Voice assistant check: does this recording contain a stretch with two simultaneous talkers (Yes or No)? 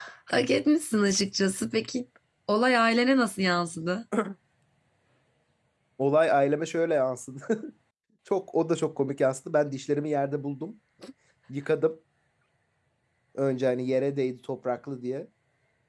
No